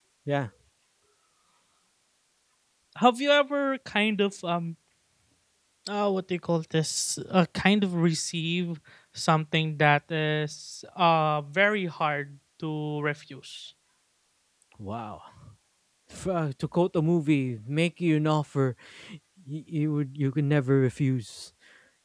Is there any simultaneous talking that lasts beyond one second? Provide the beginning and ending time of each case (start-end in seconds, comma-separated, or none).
none